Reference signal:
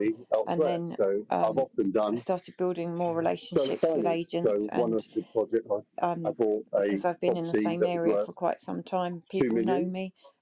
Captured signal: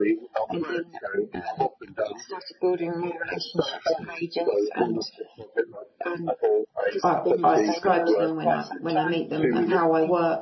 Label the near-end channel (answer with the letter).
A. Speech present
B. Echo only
A